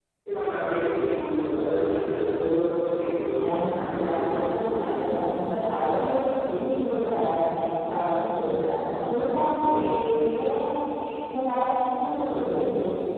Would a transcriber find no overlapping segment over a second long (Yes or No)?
No